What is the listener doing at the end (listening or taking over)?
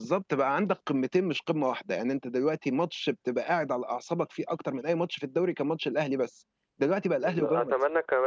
taking over